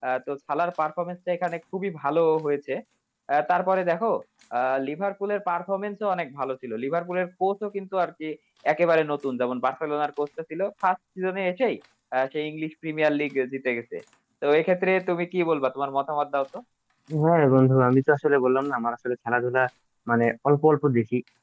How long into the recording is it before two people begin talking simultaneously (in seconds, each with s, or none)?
none